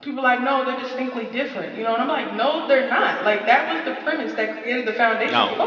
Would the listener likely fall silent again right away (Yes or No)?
Yes